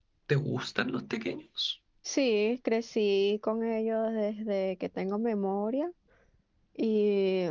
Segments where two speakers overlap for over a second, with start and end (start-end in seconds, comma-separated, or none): none